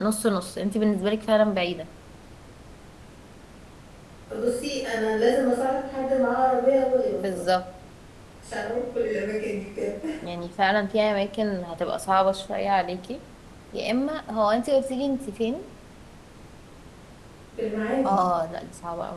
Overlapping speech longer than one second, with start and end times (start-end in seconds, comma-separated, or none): none